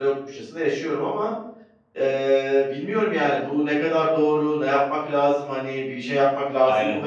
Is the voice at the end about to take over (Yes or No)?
No